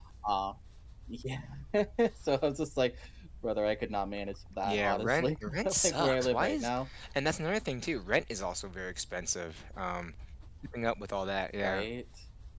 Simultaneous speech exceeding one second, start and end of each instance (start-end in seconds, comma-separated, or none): 4.6-6.7